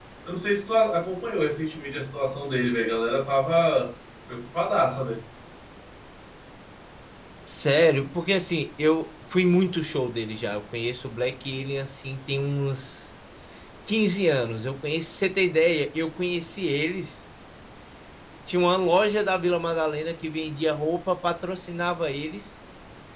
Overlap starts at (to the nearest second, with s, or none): none